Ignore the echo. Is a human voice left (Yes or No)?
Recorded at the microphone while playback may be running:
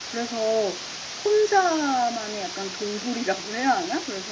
No